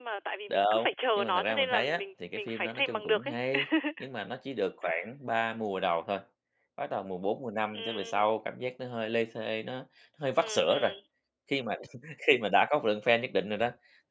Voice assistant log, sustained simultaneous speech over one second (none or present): present